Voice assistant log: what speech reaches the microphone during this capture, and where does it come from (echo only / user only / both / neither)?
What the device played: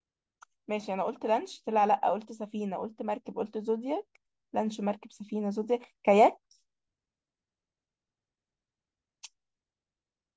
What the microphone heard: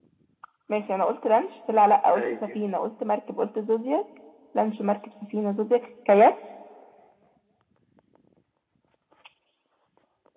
both